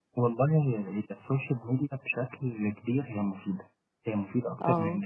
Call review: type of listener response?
listening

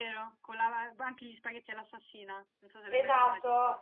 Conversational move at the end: taking over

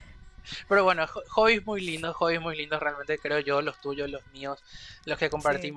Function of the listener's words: listening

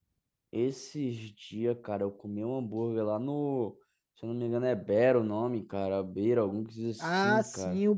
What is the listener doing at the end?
taking over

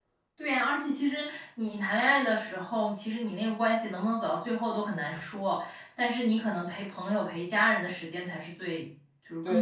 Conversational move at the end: taking over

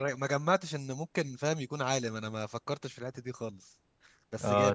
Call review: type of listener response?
taking over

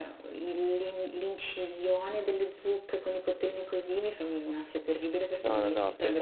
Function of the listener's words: taking over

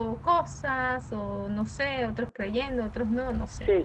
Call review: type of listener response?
taking over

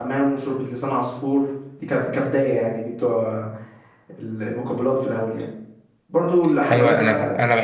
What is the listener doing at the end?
taking over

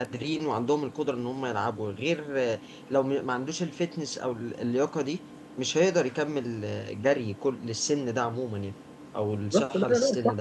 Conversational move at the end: taking over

